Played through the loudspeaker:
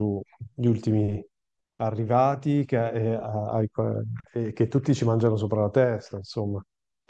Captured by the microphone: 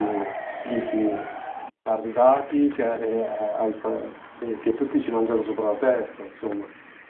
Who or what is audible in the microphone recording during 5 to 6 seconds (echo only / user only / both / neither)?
echo only